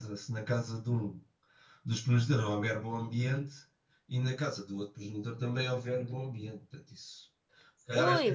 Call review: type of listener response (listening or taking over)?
listening